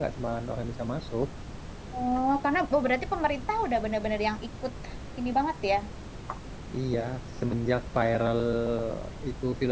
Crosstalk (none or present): none